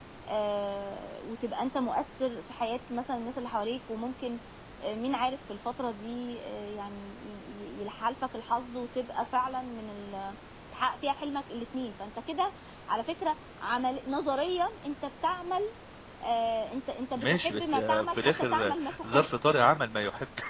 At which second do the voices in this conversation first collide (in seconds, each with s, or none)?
17.2 s